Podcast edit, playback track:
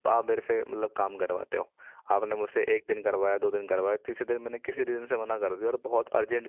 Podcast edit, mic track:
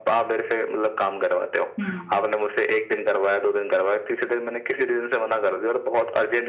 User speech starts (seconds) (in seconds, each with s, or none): 1.8 s